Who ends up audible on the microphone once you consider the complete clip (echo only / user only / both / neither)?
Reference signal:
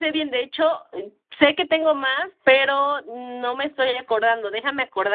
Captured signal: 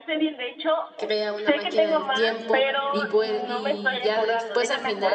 both